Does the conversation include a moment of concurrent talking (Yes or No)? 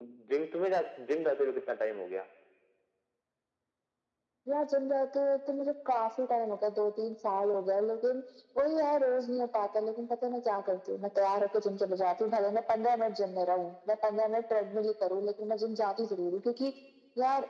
No